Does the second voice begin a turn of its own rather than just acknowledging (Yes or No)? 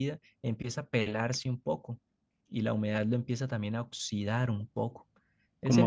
Yes